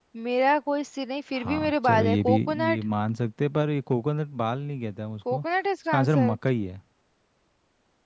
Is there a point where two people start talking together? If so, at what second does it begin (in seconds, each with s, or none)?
1.4 s